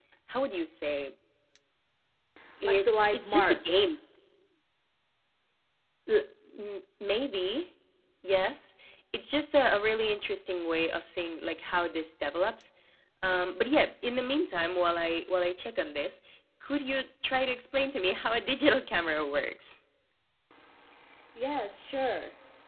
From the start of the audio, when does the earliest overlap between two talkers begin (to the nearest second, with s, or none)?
3 s